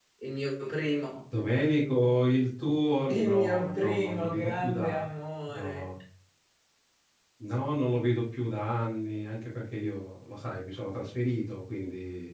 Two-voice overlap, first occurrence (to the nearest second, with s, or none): 3 s